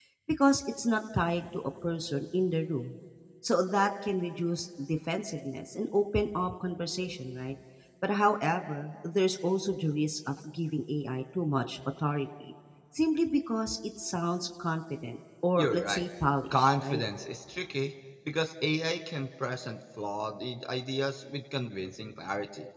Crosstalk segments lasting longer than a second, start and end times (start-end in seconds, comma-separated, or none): none